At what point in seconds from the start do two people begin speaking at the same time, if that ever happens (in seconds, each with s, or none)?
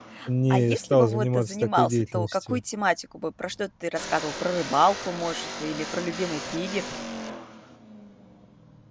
0.5 s